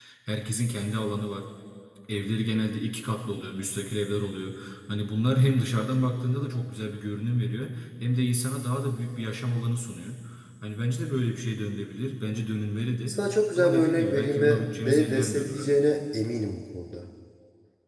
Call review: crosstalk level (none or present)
present